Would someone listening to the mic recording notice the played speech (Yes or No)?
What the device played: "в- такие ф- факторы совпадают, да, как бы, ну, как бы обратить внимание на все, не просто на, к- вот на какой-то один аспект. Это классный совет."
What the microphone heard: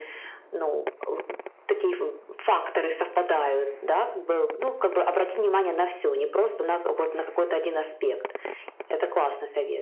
Yes